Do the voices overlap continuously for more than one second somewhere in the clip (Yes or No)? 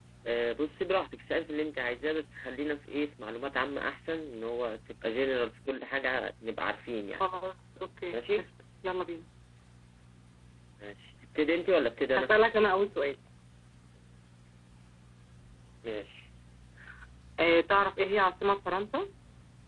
No